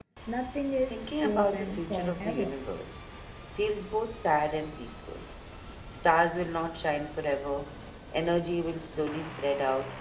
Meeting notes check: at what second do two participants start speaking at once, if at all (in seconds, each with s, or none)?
0.9 s